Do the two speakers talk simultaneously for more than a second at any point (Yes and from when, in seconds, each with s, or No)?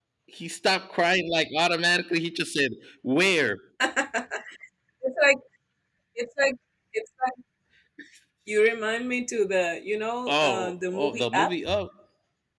Yes, from 10.3 s